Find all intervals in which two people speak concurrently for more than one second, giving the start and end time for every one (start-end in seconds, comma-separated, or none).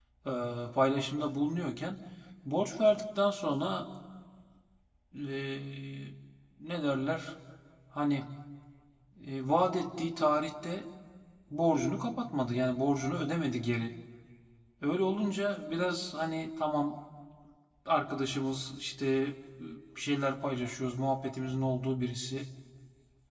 none